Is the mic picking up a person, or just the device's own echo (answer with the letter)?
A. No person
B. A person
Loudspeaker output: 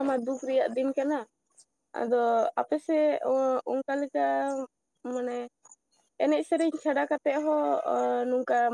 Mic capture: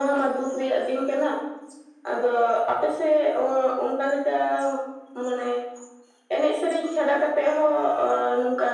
A